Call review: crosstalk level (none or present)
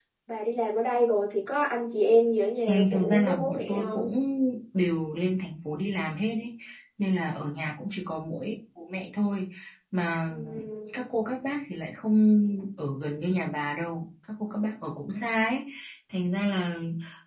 present